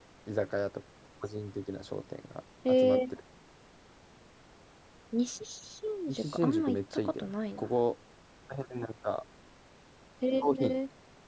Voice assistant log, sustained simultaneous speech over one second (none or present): present